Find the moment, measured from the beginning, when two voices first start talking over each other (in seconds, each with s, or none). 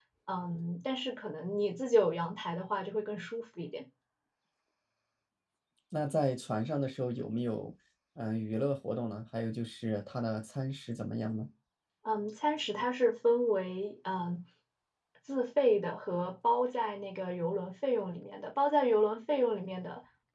none